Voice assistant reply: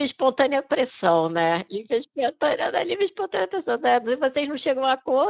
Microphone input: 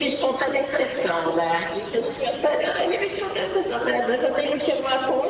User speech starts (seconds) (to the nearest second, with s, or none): none